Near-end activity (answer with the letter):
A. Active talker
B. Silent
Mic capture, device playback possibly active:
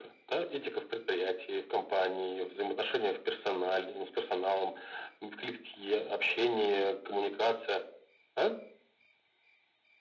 B